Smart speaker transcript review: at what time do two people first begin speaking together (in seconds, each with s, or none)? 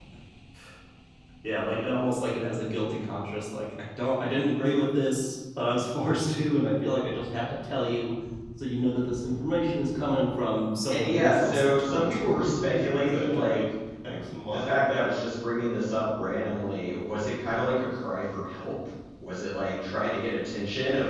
10.9 s